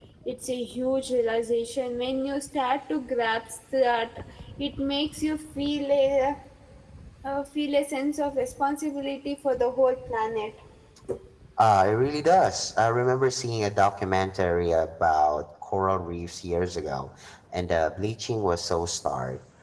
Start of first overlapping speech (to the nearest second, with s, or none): none